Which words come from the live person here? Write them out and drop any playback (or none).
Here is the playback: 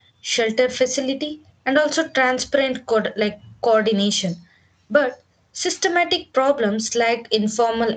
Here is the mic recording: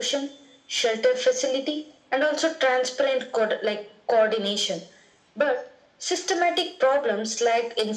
none